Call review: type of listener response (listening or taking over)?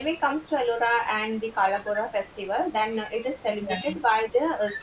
listening